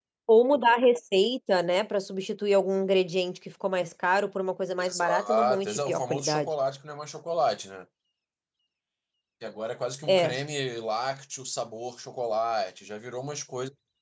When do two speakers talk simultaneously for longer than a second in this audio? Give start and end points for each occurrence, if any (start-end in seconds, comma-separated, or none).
4.8-6.5